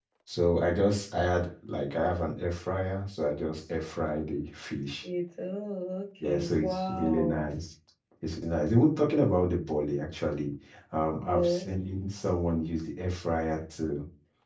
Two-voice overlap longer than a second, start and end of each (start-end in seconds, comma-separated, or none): 6.2-7.5